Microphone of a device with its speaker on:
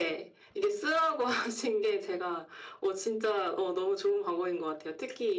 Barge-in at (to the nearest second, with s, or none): none